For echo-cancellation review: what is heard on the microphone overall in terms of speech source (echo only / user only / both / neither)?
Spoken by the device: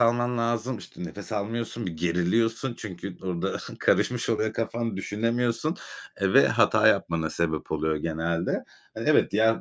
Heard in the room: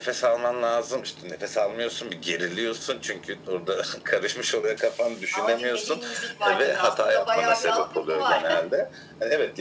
both